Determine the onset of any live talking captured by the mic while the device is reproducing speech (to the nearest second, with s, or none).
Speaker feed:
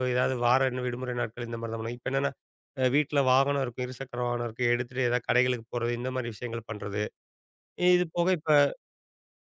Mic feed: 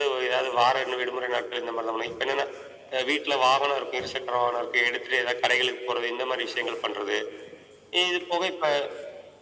none